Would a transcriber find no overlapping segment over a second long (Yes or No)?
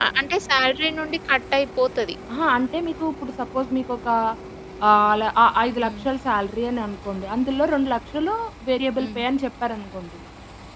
Yes